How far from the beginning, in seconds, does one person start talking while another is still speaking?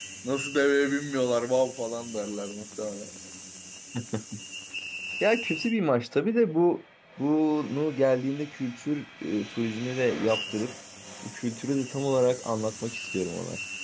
none

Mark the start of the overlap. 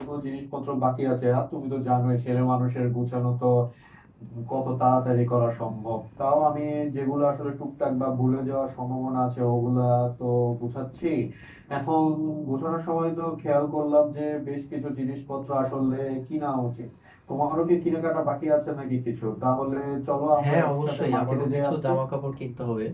20.4 s

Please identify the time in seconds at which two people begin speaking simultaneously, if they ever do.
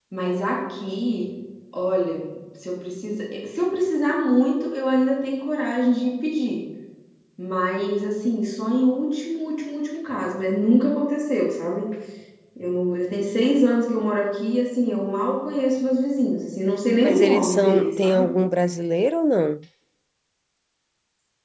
17.0 s

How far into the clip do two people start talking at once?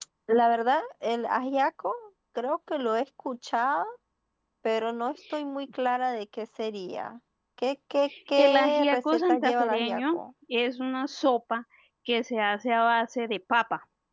8.4 s

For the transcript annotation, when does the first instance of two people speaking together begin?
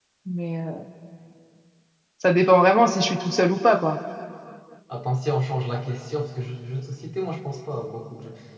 none

